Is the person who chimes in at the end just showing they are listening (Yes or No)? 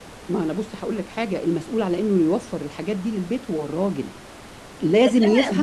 No